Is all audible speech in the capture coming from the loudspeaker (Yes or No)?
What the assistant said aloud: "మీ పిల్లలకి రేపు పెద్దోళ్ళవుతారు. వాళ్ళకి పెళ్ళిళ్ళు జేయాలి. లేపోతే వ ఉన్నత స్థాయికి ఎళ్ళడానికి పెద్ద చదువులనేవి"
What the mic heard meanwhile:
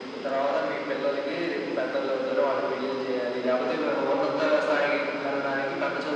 Yes